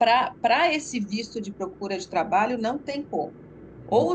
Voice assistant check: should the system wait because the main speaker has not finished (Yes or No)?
Yes